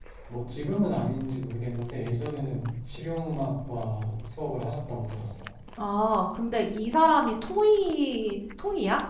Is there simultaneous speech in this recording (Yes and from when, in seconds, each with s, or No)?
No